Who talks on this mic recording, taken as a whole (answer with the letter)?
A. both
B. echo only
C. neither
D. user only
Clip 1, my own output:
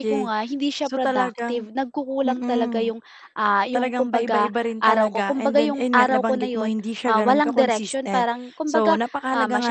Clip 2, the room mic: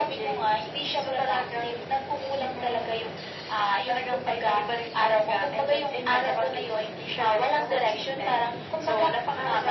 B